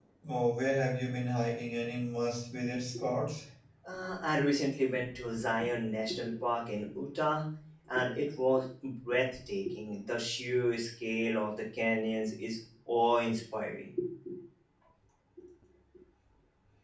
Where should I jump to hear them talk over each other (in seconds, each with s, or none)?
none